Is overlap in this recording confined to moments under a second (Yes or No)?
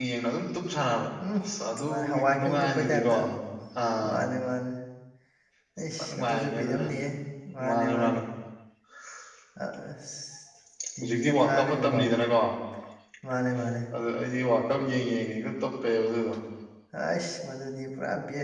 No